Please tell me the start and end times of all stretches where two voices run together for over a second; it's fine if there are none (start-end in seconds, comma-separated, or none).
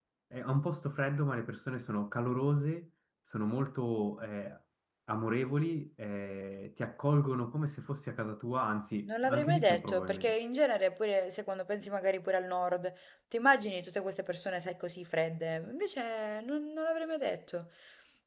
9.1-10.3